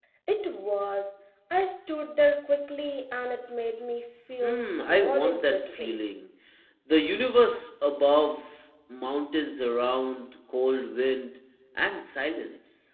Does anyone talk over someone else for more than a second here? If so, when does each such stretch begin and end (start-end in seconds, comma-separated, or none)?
4.4-6.0